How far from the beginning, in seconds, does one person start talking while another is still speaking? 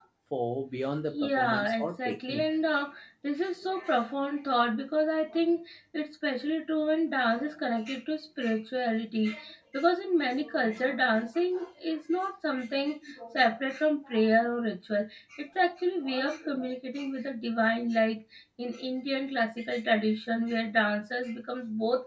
1.1 s

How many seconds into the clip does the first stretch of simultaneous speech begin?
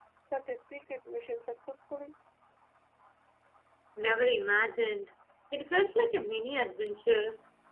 none

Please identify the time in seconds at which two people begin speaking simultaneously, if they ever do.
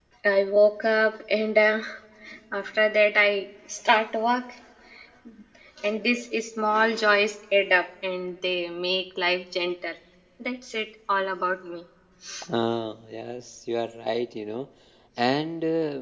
none

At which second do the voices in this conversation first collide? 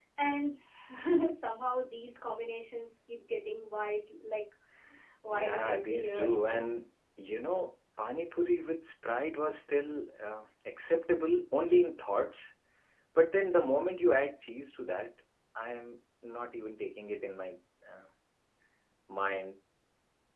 5.3 s

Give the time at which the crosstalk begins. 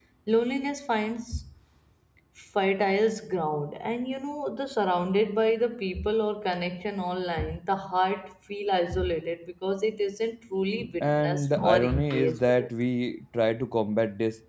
10.8 s

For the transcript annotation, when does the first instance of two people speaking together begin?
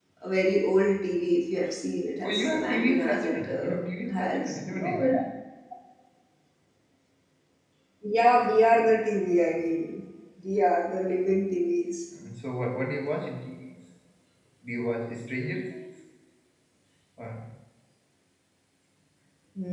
2.2 s

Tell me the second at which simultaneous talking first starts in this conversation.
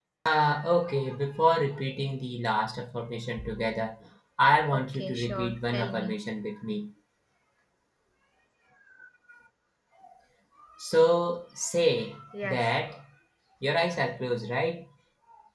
4.8 s

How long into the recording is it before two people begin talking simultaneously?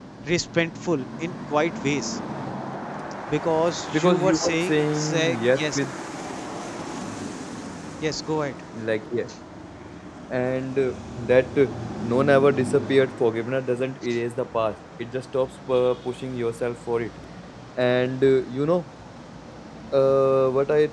3.9 s

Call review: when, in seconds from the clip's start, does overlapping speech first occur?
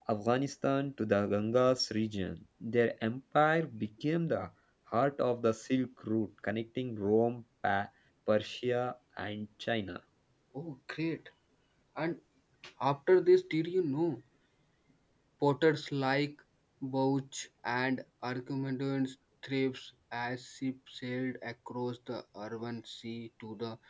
none

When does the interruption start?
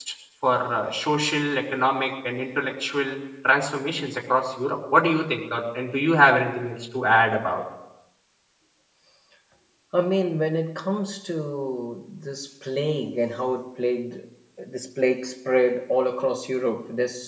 none

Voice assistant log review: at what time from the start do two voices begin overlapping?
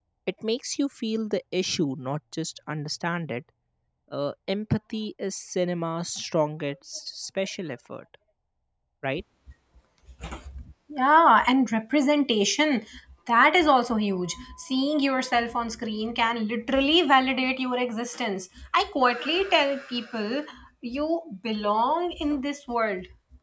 none

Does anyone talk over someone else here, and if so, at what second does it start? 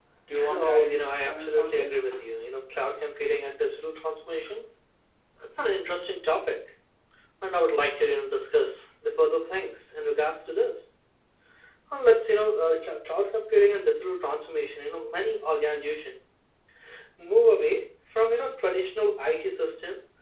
0.5 s

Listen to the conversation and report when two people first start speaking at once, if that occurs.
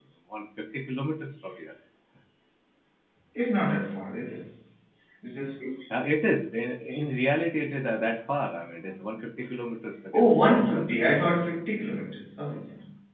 10.1 s

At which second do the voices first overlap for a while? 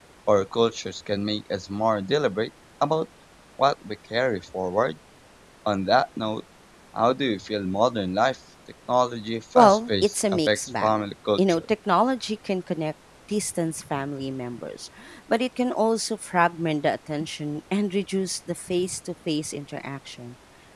9.6 s

